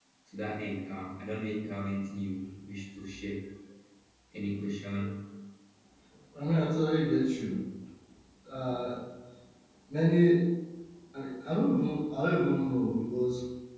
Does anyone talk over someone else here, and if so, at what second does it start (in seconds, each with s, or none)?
none